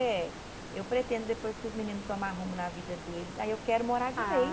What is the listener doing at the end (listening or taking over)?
taking over